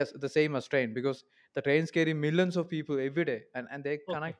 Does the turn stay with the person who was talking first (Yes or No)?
Yes